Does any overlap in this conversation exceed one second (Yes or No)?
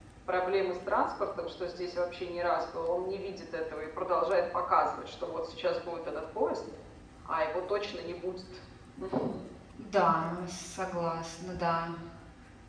No